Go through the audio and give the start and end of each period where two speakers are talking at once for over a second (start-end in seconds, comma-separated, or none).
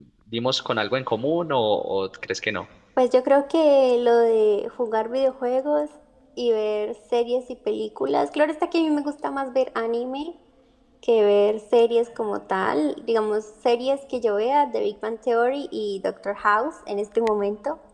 none